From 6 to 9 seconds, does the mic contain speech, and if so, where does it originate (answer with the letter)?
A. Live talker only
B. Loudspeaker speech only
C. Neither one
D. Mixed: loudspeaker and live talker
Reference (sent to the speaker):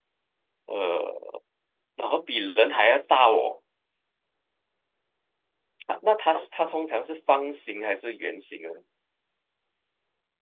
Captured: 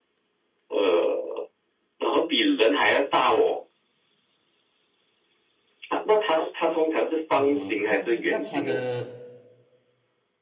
D